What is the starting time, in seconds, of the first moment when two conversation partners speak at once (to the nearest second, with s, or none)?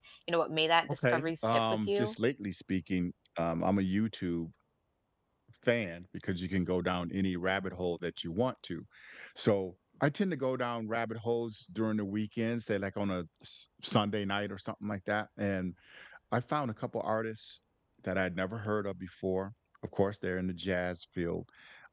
1 s